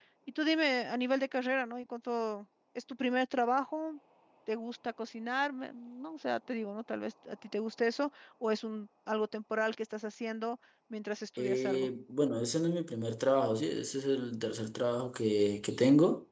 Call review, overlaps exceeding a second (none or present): none